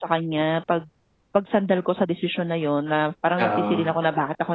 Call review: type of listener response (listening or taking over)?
listening